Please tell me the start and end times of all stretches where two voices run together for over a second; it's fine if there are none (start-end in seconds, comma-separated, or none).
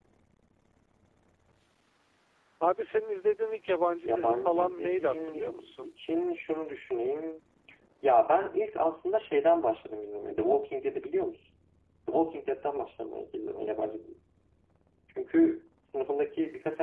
4.0-5.9